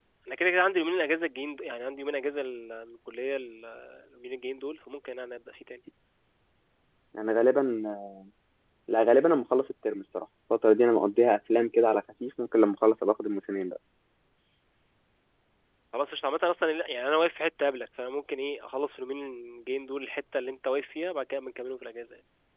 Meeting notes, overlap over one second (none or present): none